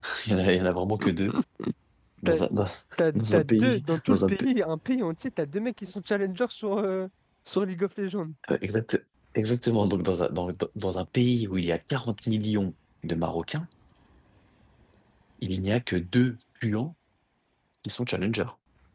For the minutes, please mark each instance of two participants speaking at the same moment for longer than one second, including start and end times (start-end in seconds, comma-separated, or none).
3.1-4.5